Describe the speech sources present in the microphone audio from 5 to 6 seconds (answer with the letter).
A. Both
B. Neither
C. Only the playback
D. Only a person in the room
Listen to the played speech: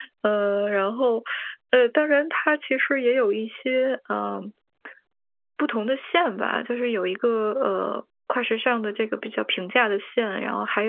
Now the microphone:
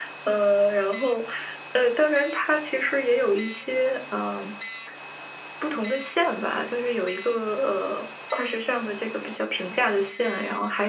C